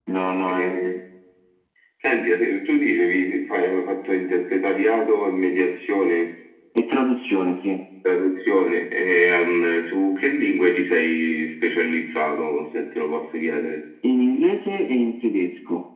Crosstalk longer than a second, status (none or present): none